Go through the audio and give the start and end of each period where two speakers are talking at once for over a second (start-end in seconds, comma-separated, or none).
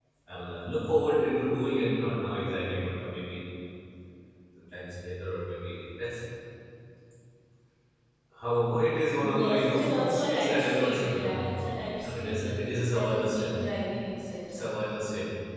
9.2-13.5